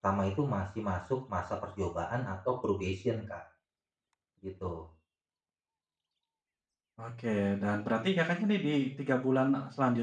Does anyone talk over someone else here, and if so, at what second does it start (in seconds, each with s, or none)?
none